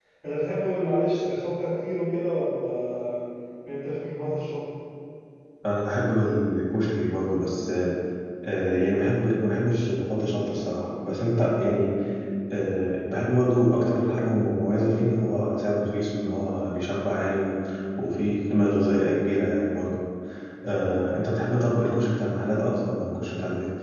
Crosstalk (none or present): none